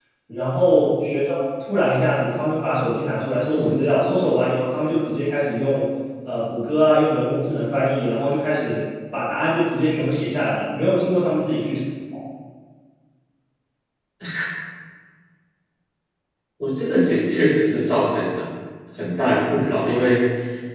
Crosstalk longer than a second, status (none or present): none